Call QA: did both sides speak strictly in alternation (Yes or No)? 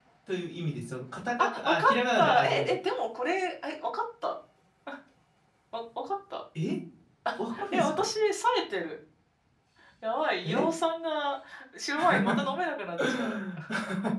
No